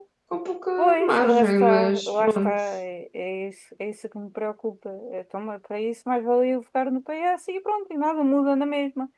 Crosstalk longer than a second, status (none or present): present